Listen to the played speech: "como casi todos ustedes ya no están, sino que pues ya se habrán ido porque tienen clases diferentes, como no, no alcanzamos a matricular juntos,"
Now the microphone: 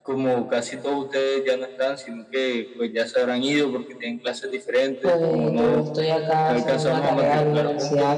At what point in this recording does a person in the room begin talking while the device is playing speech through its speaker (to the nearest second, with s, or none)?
5 s